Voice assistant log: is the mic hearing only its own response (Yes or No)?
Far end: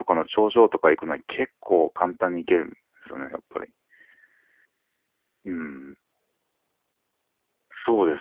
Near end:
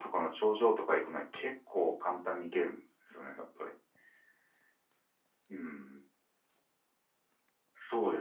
Yes